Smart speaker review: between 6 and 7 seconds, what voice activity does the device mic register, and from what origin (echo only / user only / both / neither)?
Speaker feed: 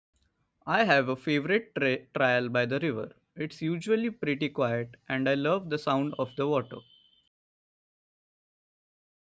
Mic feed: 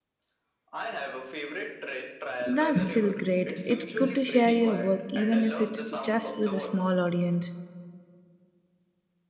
both